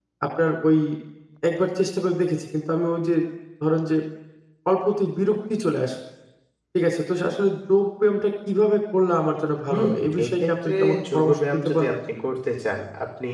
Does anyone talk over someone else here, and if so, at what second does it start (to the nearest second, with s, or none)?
10 s